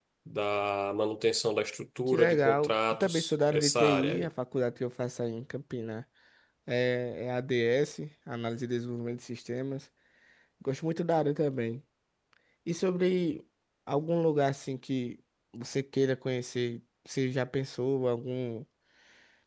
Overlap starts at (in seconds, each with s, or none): 2.1 s